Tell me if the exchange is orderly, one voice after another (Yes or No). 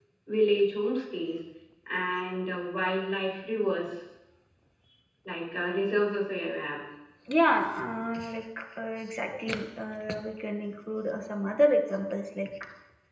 Yes